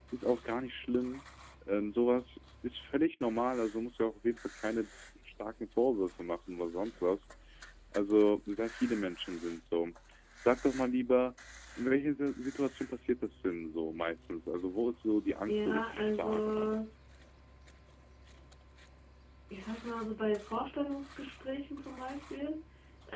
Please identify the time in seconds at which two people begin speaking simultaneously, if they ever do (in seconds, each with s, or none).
15.5 s